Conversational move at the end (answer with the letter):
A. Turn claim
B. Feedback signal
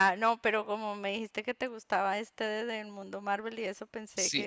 A